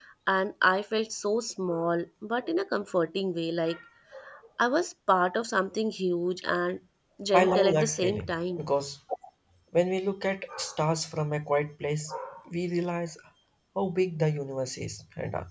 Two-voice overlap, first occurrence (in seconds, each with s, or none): 7.3 s